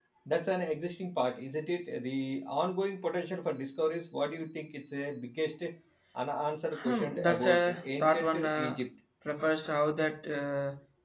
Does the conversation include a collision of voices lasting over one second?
Yes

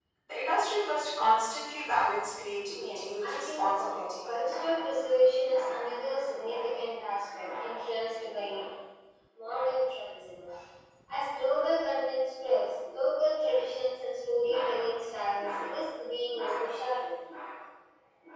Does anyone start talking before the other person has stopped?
Yes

